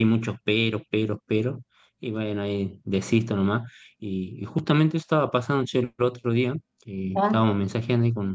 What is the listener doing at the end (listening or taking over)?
listening